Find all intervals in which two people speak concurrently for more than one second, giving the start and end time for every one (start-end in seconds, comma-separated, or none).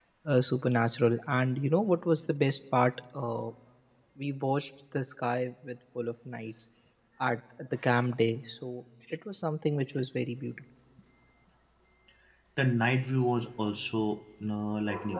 none